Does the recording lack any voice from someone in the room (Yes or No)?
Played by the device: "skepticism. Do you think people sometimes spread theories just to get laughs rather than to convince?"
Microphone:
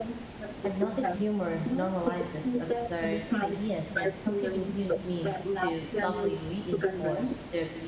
No